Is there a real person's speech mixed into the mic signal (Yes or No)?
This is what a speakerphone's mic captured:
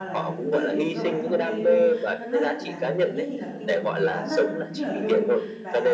Yes